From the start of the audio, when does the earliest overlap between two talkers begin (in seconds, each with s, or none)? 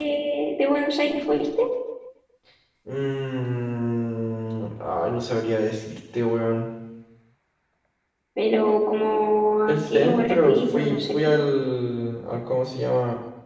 9.7 s